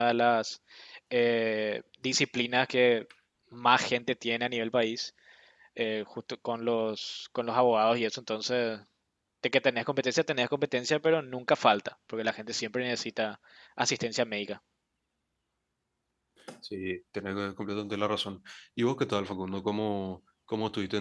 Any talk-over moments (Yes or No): No